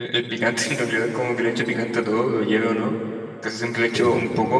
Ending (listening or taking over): listening